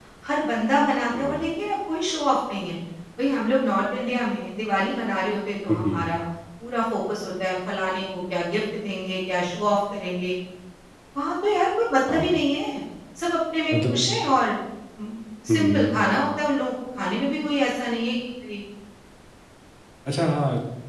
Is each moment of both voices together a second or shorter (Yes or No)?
Yes